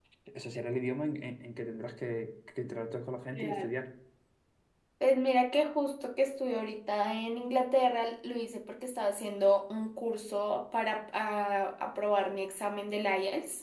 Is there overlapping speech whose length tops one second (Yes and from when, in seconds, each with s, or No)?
No